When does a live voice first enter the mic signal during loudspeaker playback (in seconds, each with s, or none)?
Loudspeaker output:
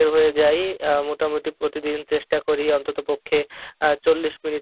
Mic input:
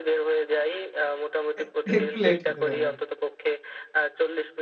1.6 s